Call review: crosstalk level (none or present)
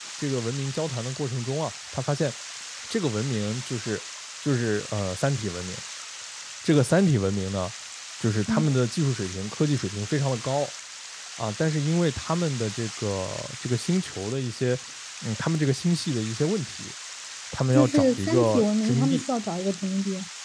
present